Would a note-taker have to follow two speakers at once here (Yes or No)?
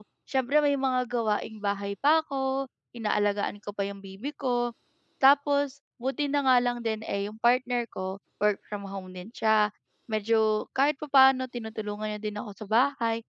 No